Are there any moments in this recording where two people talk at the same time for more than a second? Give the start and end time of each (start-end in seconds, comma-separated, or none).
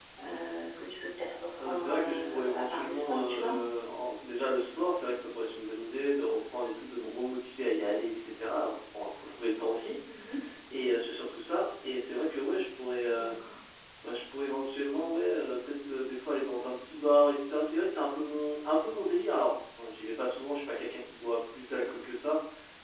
1.6-3.5